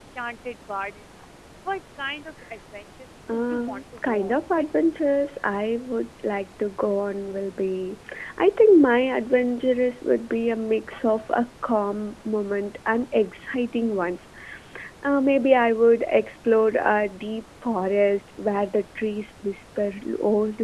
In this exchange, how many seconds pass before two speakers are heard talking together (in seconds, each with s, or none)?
3.3 s